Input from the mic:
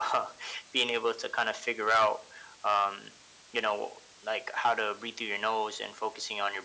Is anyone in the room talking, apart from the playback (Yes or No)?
No